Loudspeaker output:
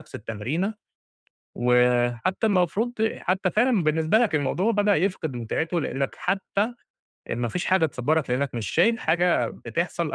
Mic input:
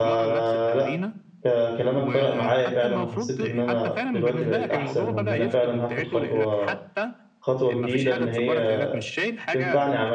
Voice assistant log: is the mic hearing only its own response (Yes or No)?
No